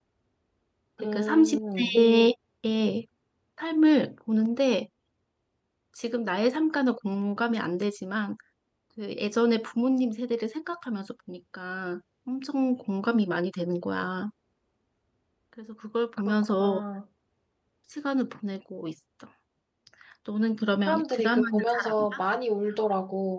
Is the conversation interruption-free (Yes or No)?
No